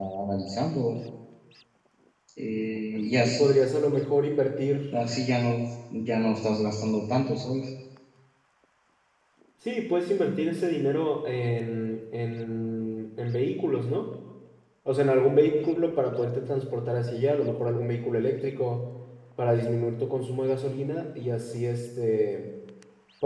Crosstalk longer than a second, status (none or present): none